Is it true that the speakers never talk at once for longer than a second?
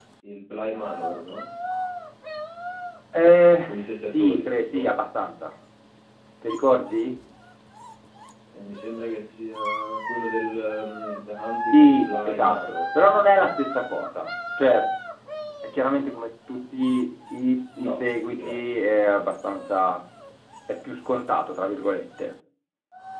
No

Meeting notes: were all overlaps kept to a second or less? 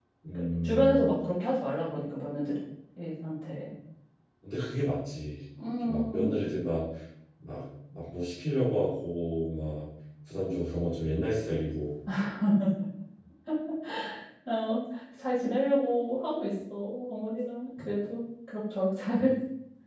Yes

